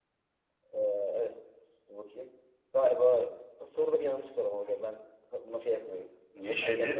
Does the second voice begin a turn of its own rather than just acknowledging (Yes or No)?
Yes